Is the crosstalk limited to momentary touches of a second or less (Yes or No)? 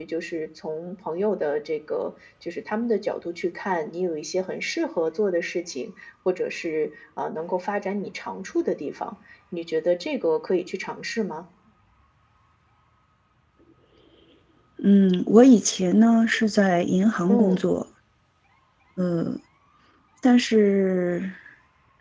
Yes